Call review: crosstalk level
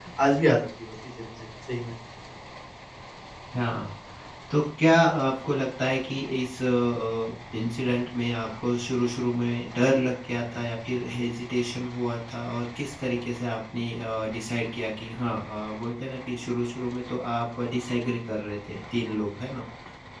none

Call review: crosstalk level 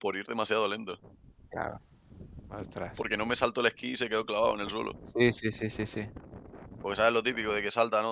none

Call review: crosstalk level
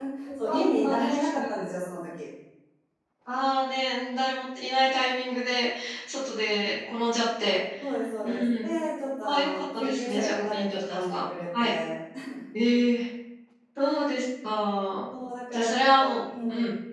present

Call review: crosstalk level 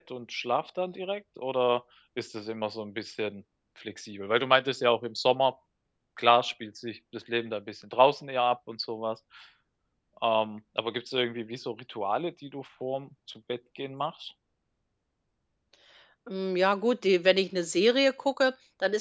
none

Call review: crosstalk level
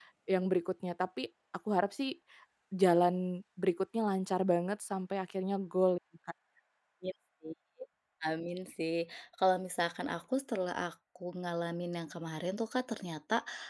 none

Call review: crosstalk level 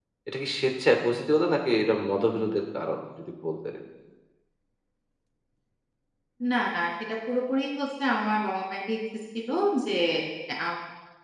none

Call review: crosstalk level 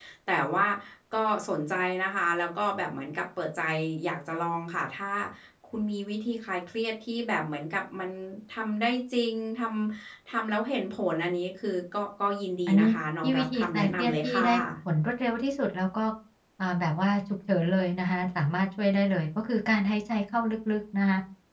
present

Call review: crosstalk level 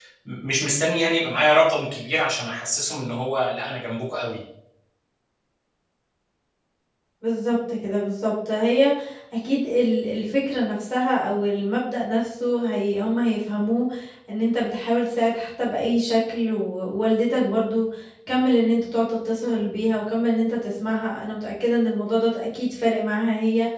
none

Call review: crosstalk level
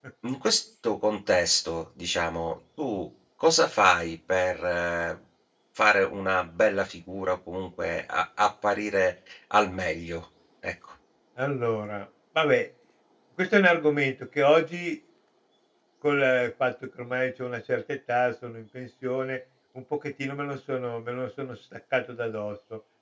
none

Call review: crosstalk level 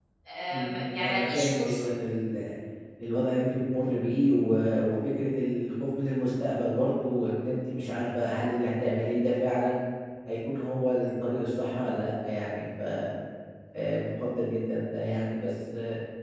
present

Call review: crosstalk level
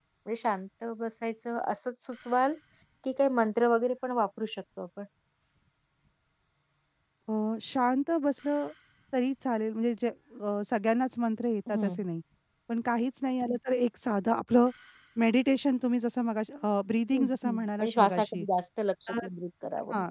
present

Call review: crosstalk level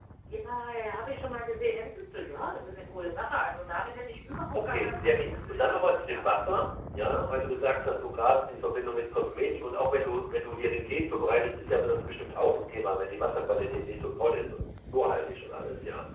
present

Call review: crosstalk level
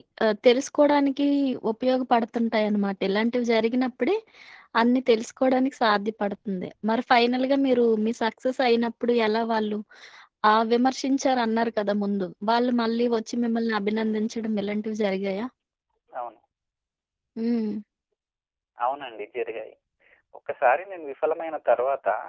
none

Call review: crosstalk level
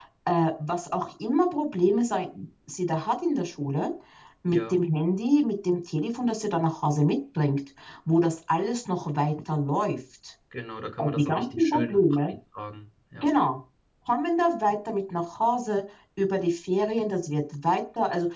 present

